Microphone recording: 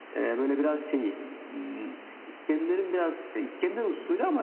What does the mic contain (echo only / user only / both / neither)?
echo only